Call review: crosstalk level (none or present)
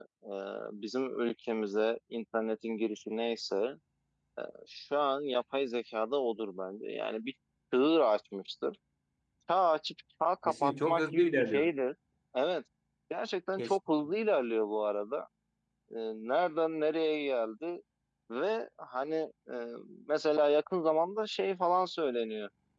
present